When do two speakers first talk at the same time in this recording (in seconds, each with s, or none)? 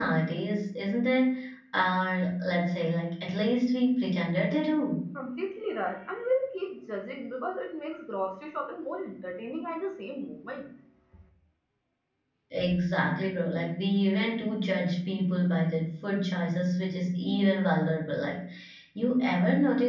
none